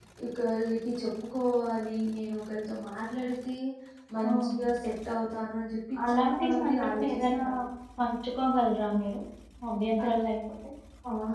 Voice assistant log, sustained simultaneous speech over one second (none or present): present